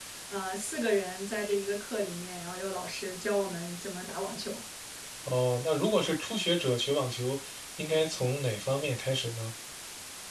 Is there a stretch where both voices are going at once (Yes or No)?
No